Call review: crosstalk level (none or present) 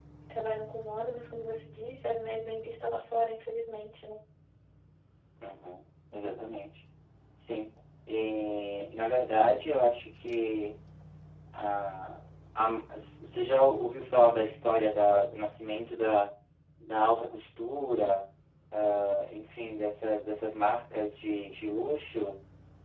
none